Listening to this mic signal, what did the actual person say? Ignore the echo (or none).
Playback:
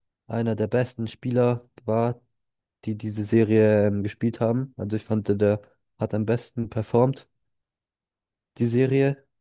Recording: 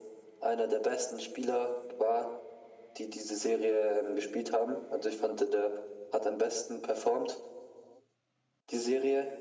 none